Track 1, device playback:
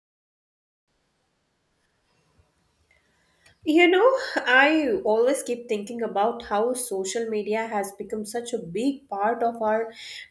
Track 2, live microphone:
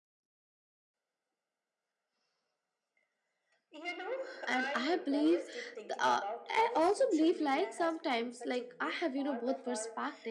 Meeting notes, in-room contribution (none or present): present